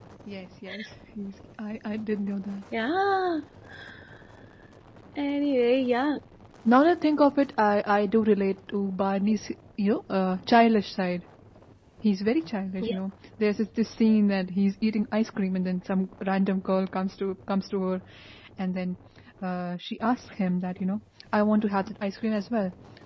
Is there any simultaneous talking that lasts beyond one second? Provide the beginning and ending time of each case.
none

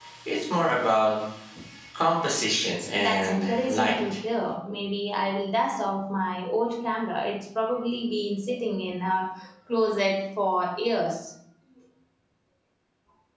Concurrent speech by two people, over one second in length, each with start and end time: 2.9-4.2

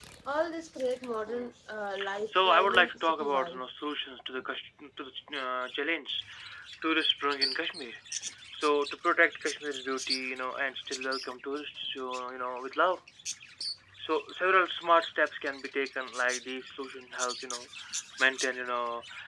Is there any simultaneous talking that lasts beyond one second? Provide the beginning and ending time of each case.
2.2-3.6

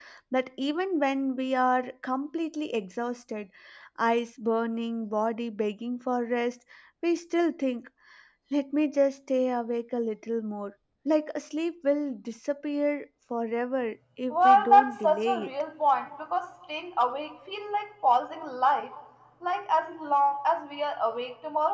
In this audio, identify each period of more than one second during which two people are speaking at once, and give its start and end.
14.3-15.5

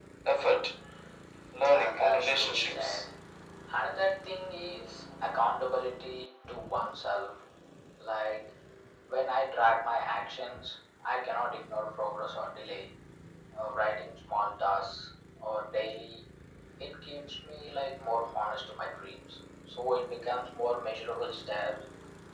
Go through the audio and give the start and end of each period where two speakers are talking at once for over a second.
1.7-3.0

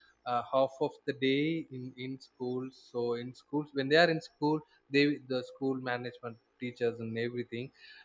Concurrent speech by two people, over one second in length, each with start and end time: none

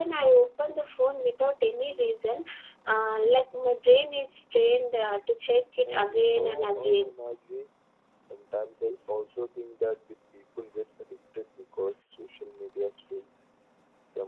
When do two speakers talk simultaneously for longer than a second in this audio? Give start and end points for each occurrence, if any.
5.8-7.1

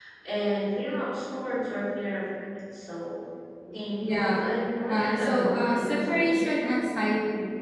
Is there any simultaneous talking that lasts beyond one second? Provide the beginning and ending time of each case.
4.9-6.7

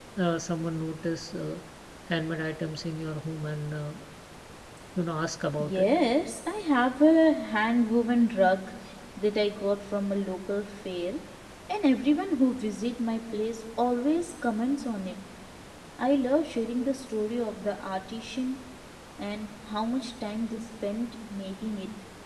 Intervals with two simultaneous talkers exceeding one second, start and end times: none

